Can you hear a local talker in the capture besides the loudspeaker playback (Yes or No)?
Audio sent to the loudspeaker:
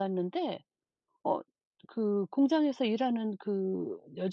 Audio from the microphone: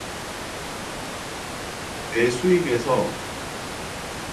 Yes